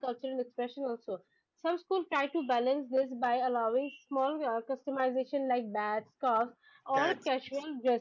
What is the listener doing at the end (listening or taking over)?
listening